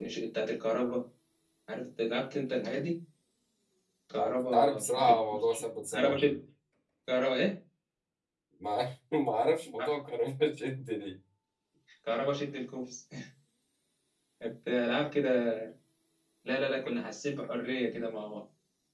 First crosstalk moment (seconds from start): 4.2 s

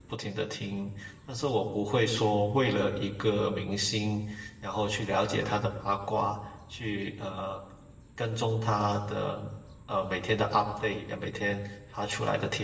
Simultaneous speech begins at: none

